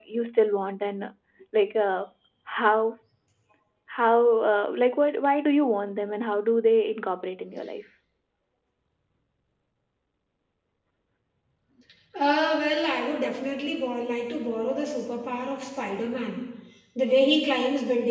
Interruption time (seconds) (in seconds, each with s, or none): none